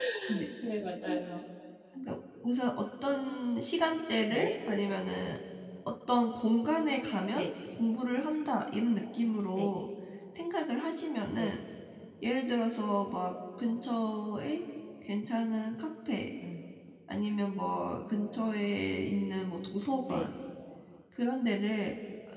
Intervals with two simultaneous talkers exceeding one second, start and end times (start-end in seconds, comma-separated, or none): none